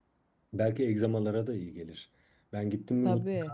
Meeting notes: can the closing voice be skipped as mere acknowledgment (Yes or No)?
Yes